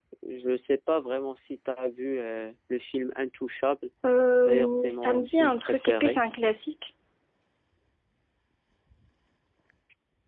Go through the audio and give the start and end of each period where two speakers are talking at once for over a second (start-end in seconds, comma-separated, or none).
4.5-6.2